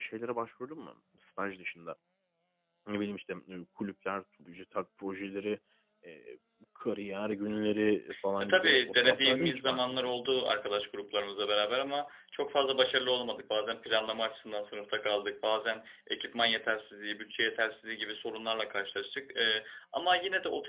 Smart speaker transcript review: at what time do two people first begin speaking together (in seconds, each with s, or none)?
8.4 s